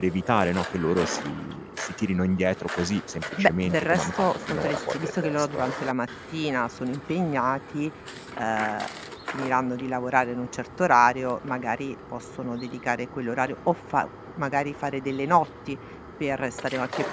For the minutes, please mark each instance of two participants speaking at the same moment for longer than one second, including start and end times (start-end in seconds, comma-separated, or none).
3.4-5.6